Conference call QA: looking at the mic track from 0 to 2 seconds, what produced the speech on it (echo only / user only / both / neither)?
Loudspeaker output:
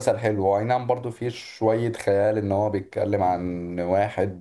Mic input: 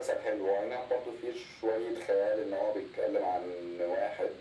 echo only